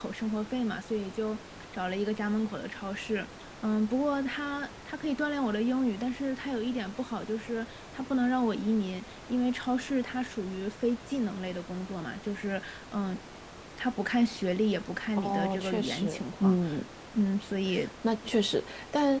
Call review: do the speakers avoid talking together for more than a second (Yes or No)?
No